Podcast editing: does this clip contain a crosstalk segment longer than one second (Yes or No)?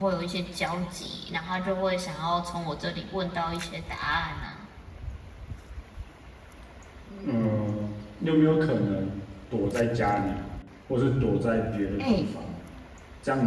No